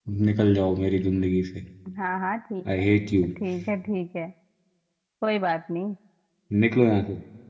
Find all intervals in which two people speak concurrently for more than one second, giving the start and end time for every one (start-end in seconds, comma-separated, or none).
none